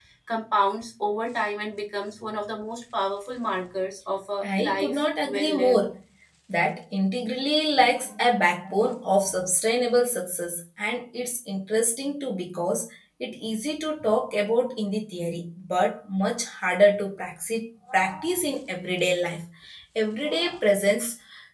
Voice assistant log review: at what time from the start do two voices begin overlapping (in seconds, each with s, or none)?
4.4 s